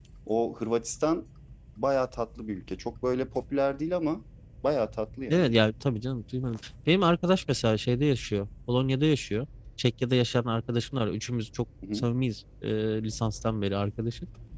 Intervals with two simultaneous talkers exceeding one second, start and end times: none

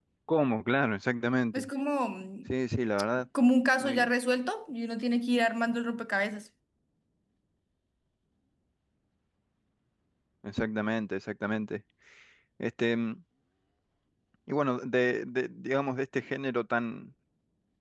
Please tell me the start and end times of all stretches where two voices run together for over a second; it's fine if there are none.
none

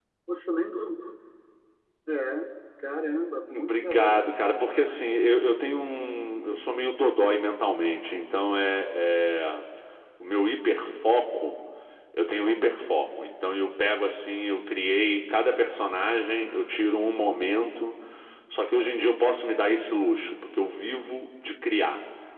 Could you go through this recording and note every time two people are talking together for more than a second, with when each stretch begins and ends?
3.5-5.1

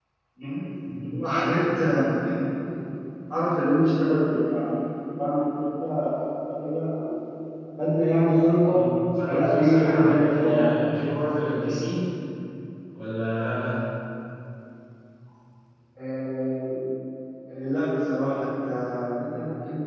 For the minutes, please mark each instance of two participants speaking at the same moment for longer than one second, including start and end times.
9.3-10.7

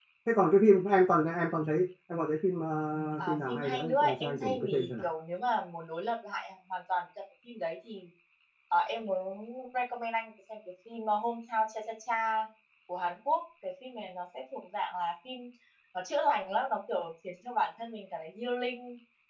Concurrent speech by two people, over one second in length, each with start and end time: 3.2-5.1

